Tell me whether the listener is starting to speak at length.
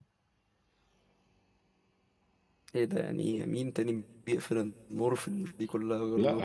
Yes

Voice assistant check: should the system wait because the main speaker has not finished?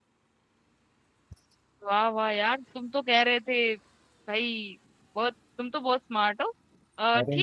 Yes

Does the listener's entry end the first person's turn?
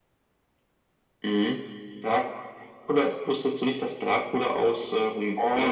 Yes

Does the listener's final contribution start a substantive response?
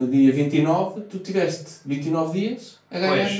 Yes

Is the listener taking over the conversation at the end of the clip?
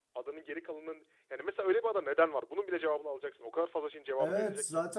Yes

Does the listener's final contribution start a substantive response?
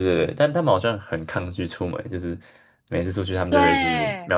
No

